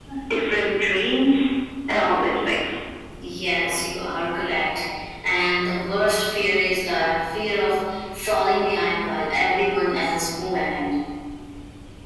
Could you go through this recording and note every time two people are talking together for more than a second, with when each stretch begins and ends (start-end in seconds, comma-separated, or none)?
none